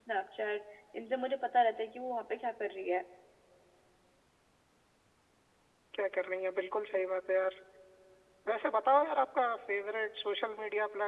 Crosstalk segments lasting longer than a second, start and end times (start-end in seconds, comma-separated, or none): none